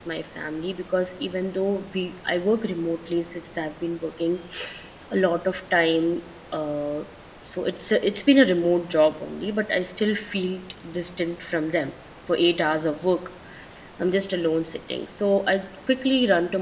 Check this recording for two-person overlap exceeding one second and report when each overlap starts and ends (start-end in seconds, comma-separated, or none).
none